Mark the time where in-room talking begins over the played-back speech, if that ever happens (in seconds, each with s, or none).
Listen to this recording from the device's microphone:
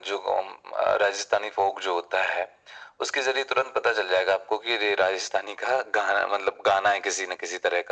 none